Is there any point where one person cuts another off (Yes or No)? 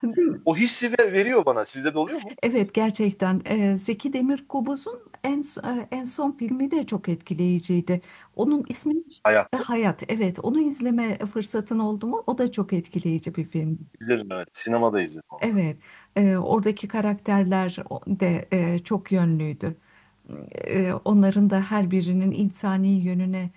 No